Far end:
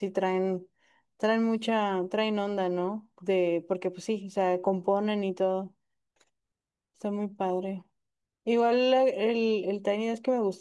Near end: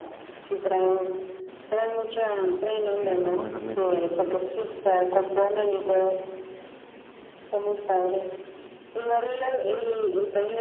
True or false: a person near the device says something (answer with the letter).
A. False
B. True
B